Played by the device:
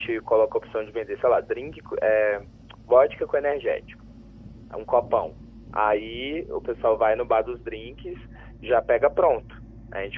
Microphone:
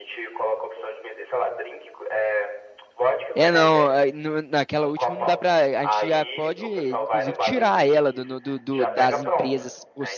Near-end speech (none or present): present